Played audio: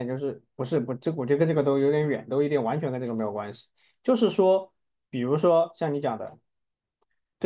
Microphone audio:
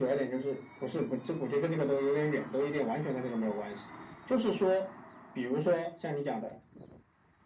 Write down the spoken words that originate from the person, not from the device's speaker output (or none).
none